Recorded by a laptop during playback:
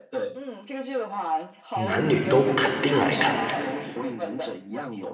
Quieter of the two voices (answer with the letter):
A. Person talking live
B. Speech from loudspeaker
B